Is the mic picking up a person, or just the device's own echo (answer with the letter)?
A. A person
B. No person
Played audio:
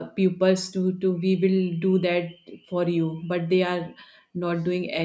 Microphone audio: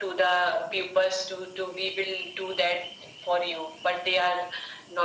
B